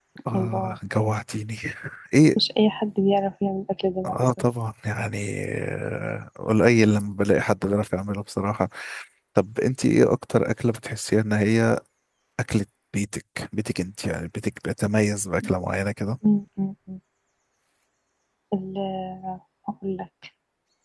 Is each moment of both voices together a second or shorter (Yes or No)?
Yes